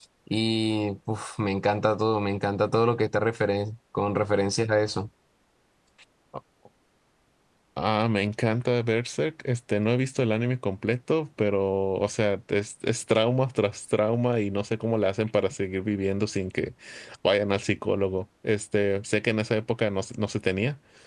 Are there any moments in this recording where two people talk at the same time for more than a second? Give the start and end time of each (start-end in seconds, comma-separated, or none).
none